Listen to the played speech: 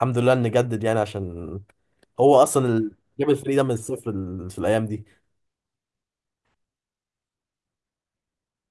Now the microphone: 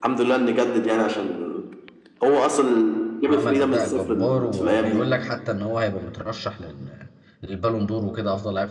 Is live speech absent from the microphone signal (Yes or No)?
No